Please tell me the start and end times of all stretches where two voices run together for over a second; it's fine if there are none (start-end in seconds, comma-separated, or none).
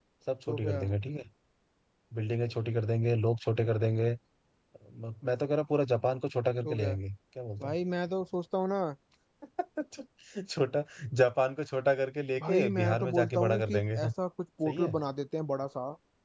12.4-14.0